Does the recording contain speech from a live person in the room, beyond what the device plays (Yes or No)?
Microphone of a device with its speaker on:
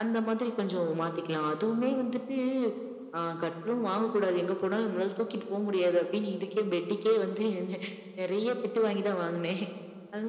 No